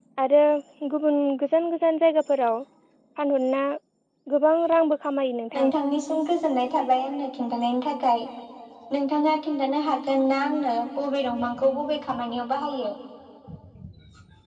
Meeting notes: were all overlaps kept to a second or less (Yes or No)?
Yes